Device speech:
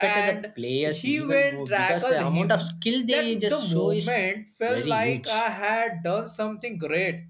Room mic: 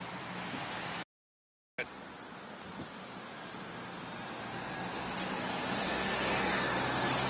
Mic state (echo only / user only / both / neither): neither